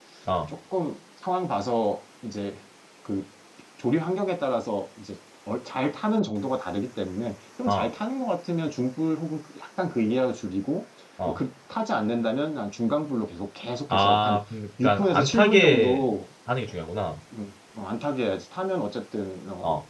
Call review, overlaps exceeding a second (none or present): present